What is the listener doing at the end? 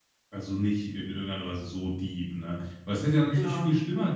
listening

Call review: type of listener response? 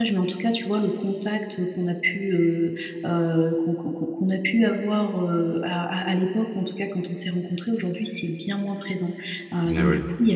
listening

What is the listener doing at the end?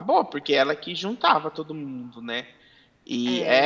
listening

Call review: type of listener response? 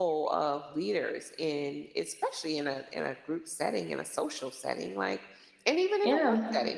listening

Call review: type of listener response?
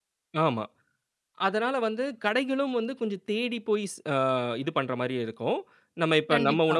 listening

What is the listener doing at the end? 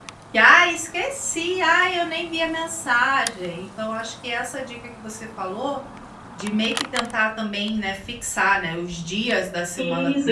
taking over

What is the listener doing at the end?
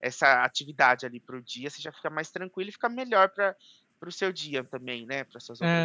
taking over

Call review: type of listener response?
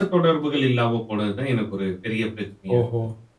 taking over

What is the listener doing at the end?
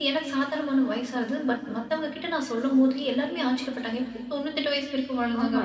taking over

